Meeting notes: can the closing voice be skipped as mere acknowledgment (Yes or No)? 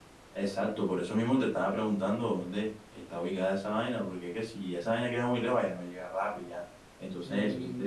No